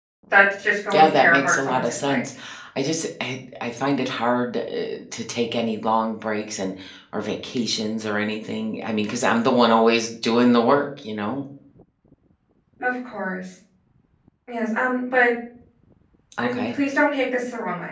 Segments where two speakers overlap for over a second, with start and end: 0.9-2.2

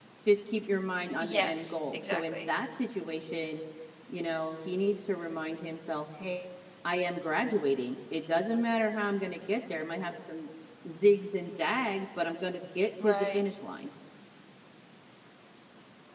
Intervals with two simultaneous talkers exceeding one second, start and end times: 1.2-2.5

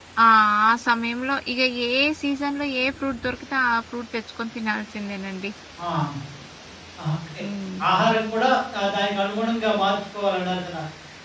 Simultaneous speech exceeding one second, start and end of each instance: none

